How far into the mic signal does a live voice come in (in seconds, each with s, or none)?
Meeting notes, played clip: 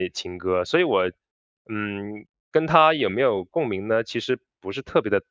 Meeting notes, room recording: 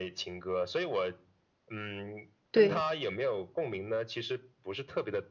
2.5 s